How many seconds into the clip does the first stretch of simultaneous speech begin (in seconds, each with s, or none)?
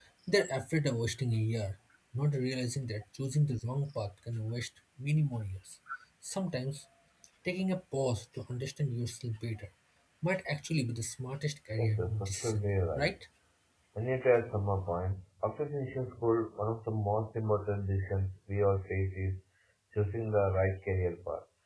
11.8 s